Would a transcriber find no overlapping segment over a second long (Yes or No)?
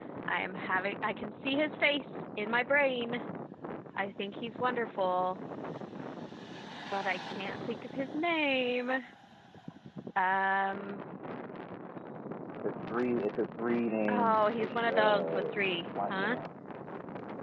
No